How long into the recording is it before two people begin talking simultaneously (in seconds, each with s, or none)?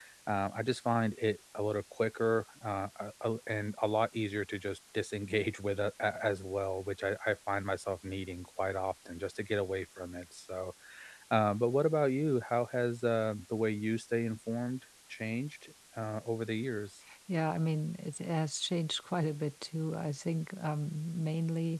none